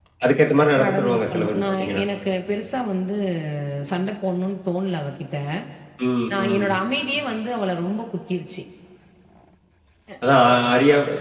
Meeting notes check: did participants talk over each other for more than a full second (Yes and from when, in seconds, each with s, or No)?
Yes, from 0.8 s